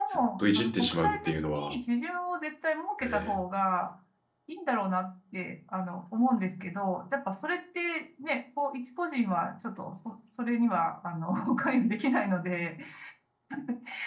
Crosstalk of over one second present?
Yes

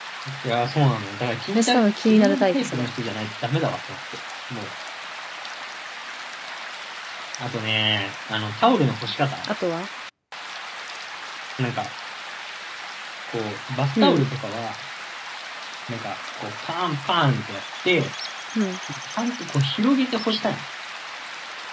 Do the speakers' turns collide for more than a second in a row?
Yes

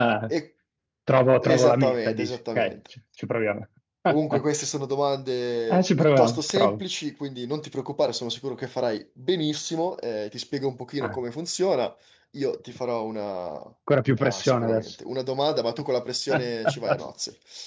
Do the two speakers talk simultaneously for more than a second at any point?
Yes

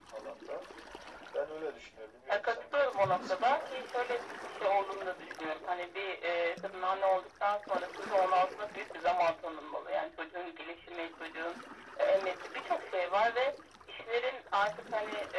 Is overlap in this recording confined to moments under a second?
No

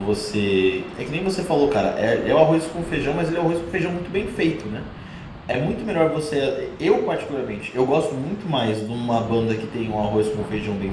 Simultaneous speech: No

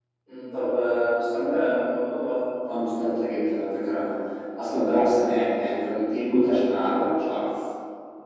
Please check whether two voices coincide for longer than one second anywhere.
No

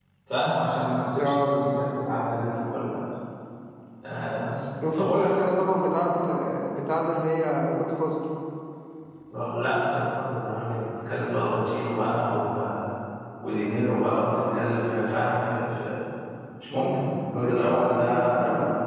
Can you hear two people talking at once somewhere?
Yes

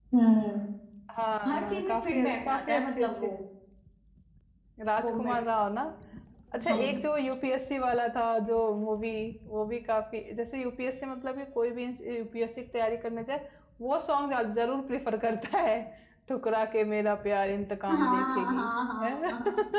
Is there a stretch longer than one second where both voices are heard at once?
Yes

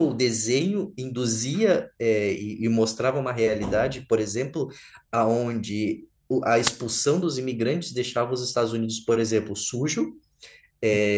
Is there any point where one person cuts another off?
No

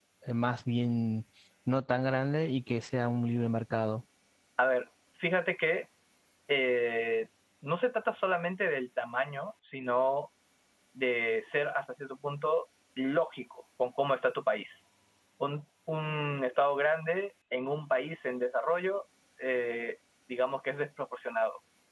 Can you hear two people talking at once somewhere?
No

